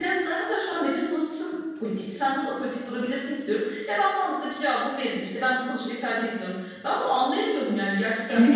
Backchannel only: No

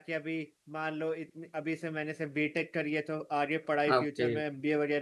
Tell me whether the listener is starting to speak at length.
No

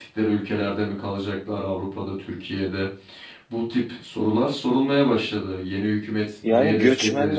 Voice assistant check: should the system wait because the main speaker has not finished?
No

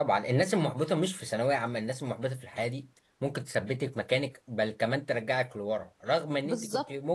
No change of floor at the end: Yes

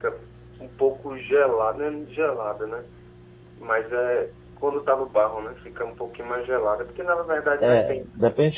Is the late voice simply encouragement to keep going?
No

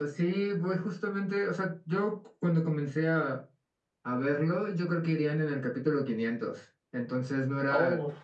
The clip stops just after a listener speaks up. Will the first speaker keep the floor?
Yes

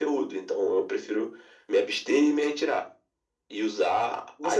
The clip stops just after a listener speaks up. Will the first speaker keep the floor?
No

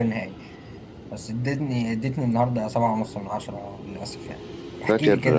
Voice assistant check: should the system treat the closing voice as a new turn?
No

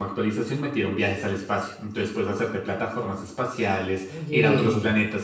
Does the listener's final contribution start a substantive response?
No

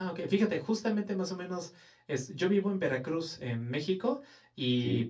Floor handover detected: No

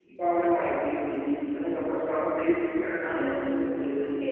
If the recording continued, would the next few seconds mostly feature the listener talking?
Yes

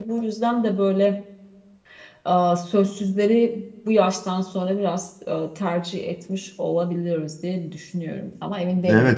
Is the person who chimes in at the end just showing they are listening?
No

